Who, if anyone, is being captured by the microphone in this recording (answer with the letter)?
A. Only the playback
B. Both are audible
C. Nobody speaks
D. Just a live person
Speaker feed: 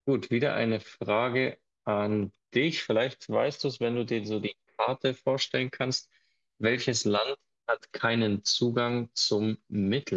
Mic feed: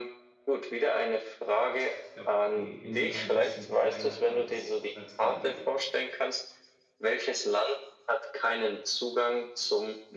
B